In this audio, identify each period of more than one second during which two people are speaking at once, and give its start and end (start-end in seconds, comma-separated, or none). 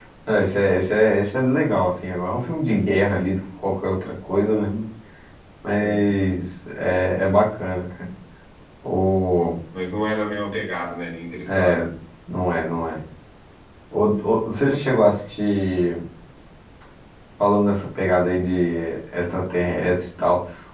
none